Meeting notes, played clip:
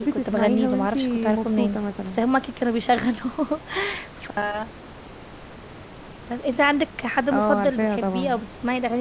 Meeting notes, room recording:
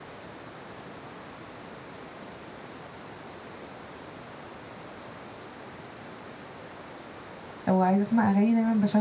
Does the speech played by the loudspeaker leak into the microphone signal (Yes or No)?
No